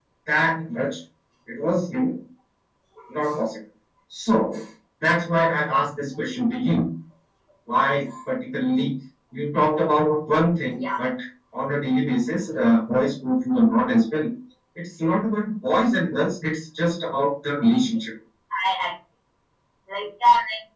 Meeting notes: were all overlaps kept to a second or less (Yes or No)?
Yes